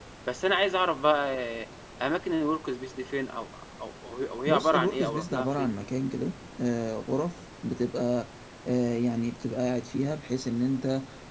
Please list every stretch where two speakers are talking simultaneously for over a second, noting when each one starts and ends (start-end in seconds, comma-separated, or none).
4.5-5.9